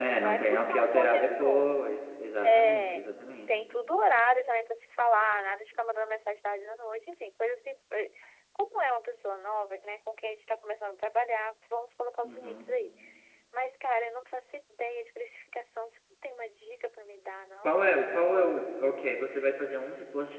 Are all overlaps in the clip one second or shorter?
No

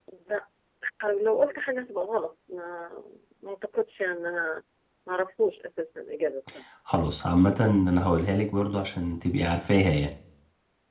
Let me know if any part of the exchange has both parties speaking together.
No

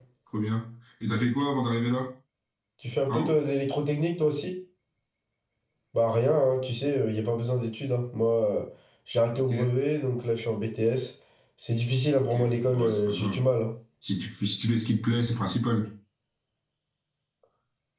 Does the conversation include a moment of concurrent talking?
Yes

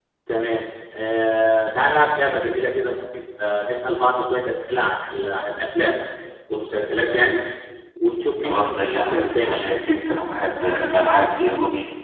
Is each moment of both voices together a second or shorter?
No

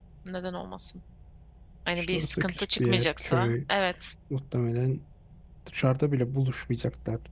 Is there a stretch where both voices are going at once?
Yes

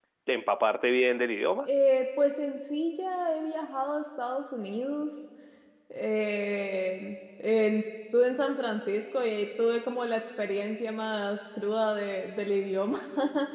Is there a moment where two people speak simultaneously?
No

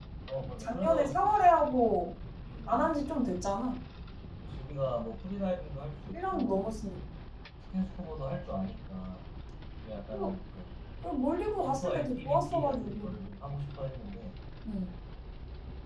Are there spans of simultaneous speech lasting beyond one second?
Yes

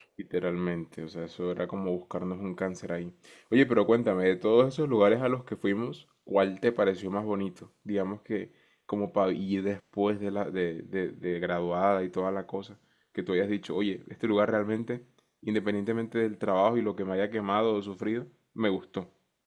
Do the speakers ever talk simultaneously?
No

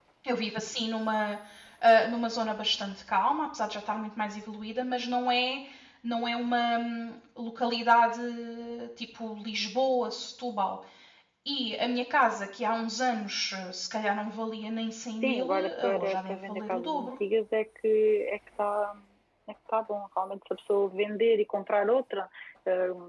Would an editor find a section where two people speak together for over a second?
Yes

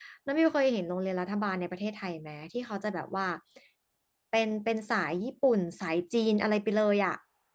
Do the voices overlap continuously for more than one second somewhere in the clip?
No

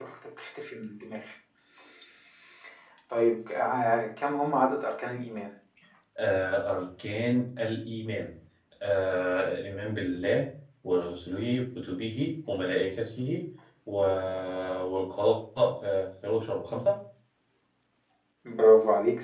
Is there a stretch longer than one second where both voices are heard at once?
No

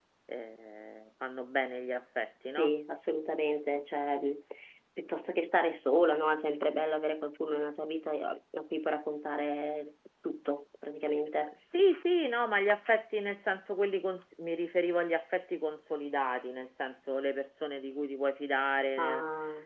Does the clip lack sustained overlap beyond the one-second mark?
Yes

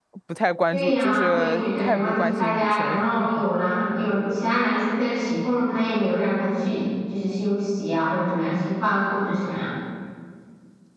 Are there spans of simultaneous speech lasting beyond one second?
Yes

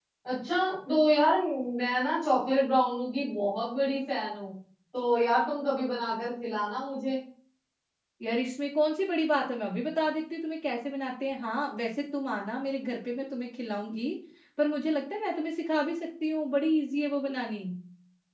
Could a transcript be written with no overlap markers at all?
Yes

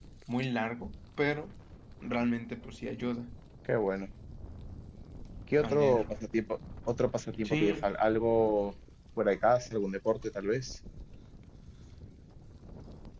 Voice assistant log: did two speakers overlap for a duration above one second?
No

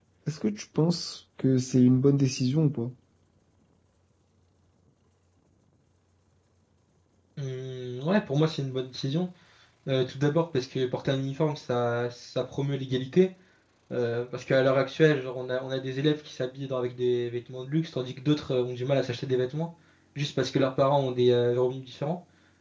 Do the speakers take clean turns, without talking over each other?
Yes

